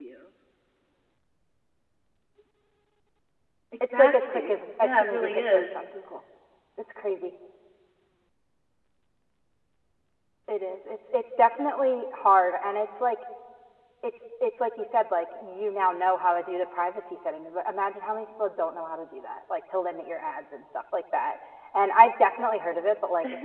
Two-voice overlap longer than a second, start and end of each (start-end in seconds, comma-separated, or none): 3.9-5.6